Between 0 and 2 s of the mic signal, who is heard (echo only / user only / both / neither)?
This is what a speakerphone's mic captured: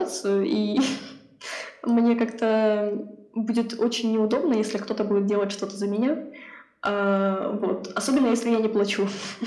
echo only